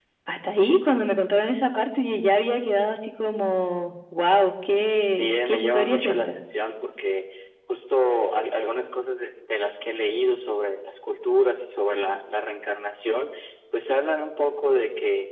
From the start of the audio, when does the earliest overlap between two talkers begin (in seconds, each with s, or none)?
5.1 s